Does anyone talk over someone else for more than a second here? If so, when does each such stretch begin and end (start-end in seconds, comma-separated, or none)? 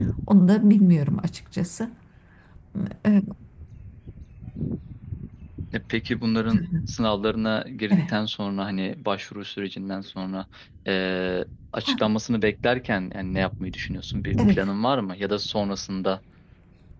none